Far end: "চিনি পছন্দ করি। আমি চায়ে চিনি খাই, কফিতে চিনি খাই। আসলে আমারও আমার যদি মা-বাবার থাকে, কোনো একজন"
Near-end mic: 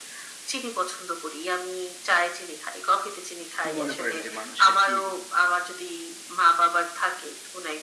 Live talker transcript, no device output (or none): কি মনে করেন যে মানুষের কি